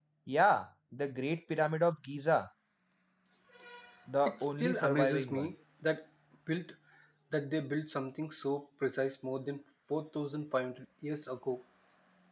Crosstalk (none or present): present